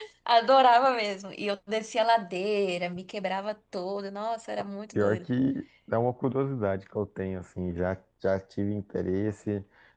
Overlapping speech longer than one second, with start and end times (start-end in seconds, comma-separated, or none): none